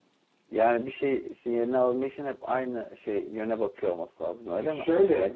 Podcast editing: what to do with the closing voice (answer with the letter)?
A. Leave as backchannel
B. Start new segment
B